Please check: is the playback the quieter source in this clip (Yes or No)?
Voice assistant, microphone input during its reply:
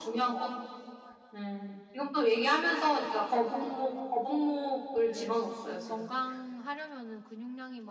No